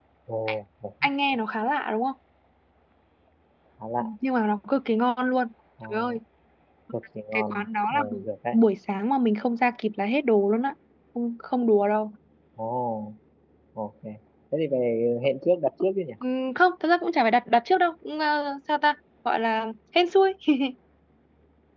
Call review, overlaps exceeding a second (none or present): present